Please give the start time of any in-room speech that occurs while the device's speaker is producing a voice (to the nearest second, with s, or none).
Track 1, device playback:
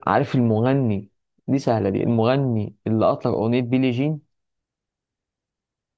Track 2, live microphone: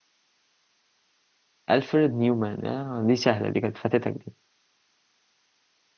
2 s